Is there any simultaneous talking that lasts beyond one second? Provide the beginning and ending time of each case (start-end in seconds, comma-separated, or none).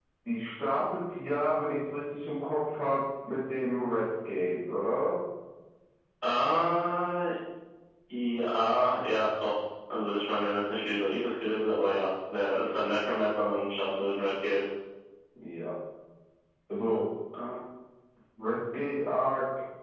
none